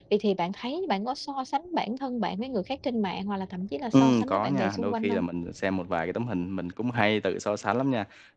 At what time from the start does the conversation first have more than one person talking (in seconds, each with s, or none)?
3.9 s